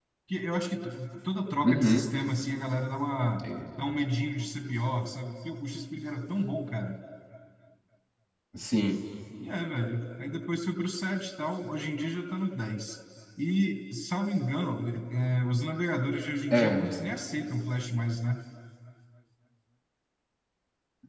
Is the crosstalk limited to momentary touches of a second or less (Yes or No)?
Yes